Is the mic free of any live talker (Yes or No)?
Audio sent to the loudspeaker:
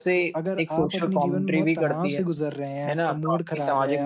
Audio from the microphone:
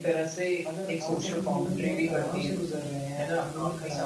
Yes